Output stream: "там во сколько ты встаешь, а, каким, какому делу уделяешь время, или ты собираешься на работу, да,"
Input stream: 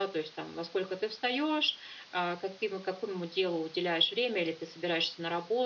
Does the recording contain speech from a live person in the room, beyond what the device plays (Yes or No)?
No